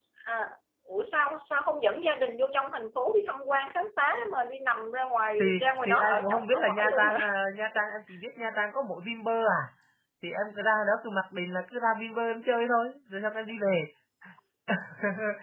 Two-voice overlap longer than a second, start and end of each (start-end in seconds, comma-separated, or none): 5.4-7.3